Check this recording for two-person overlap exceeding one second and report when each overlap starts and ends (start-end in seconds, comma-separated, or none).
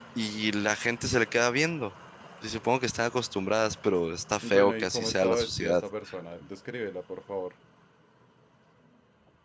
4.4-5.8